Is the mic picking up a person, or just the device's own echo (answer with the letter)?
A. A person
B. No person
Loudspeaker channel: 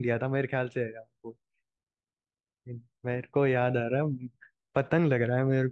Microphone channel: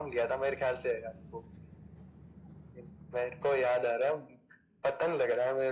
B